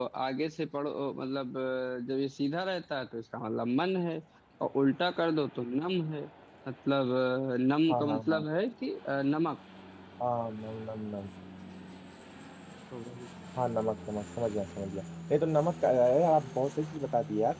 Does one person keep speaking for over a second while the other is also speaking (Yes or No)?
No